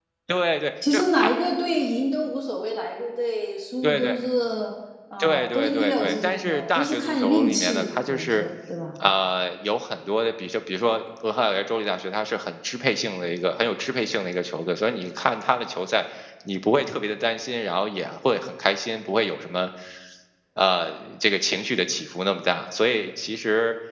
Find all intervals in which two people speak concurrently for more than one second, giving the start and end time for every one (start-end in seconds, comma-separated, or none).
5.2-8.4